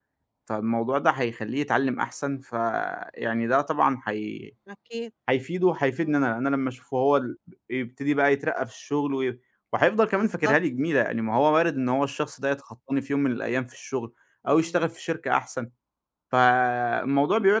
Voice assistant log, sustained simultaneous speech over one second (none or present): none